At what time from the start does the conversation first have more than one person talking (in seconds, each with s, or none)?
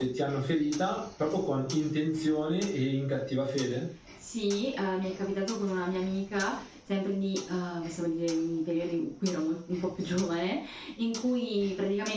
none